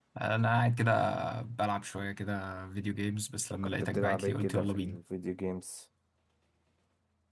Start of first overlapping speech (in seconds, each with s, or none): 3.5 s